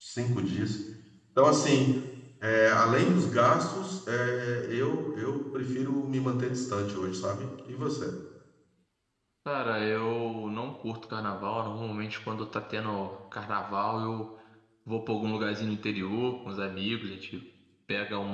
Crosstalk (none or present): none